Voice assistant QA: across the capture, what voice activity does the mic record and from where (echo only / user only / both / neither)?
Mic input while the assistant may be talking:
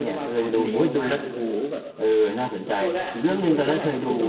both